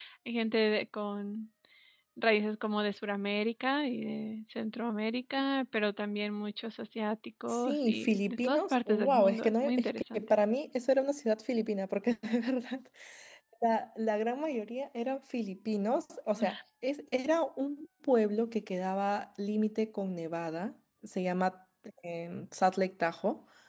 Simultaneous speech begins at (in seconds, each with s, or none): 7.5 s